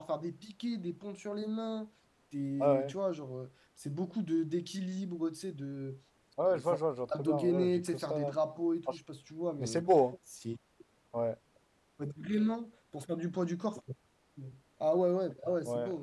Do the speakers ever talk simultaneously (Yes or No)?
Yes